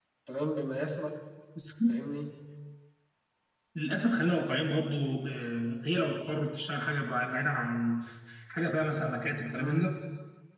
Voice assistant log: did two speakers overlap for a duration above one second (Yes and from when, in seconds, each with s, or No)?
No